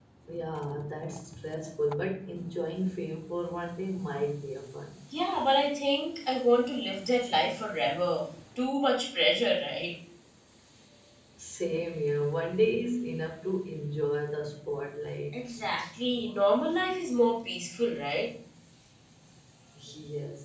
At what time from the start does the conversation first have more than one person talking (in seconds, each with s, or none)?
none